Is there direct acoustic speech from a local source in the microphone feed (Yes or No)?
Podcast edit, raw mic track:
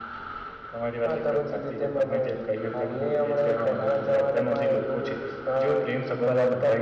No